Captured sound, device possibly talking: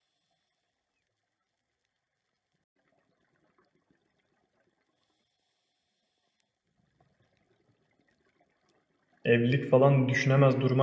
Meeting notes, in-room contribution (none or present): present